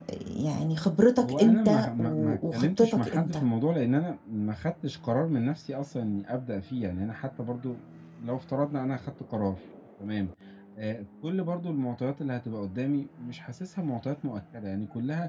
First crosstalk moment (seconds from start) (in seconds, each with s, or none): 1.2 s